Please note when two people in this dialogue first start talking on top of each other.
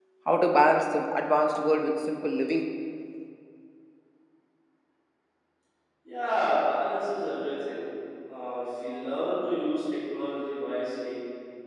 none

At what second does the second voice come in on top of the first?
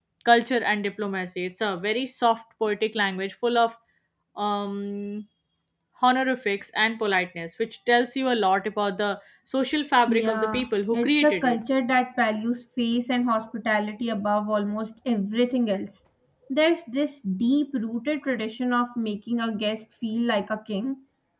10.1 s

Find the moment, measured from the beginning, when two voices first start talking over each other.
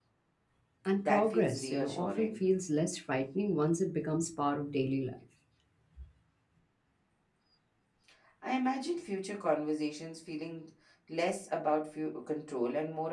1.0 s

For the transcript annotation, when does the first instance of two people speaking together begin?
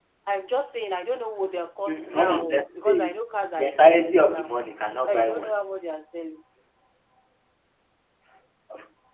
1.9 s

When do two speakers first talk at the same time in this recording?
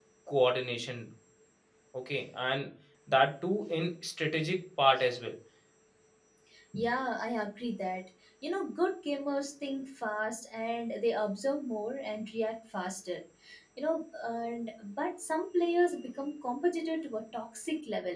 none

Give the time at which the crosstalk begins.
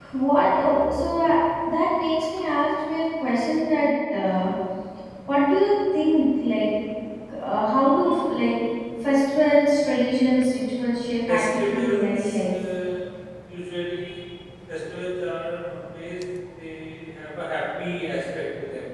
11.3 s

